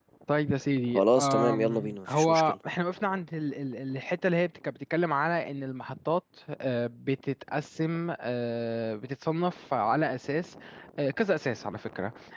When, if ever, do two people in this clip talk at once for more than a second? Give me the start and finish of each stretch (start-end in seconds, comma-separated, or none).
0.9-2.5